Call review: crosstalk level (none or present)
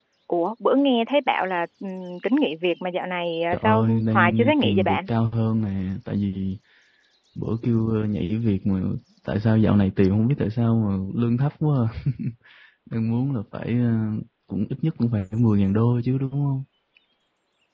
present